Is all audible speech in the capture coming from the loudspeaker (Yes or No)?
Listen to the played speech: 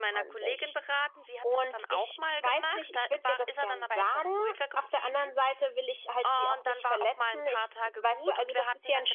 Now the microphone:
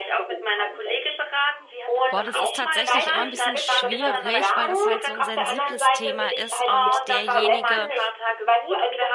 No